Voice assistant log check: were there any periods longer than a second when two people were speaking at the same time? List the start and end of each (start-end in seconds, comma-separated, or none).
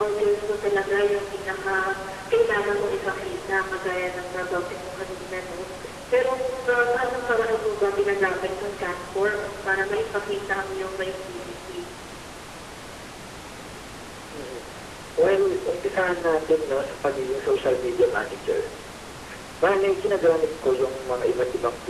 none